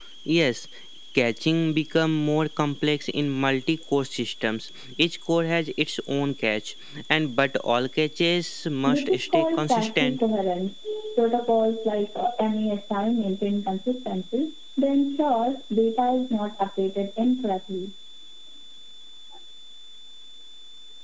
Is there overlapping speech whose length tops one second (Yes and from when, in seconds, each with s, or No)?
Yes, from 8.9 s